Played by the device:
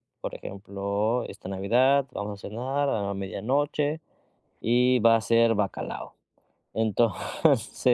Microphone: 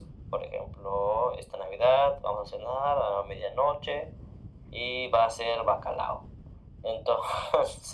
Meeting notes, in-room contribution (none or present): none